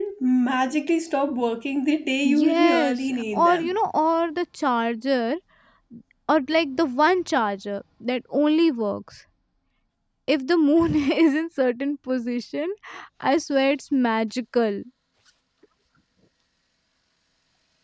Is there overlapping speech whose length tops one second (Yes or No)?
Yes